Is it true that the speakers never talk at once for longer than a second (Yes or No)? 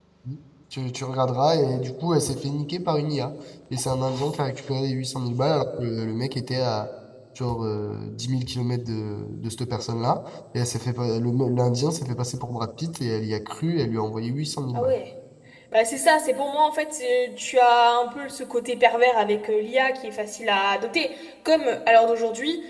Yes